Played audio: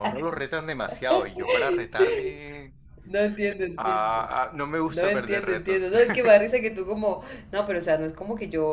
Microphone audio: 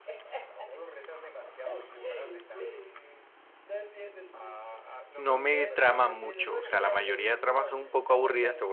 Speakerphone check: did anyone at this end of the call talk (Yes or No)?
Yes